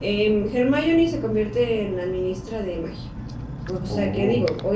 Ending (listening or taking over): listening